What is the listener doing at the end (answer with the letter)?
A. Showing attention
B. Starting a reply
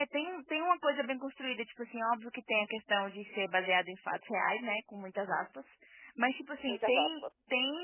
A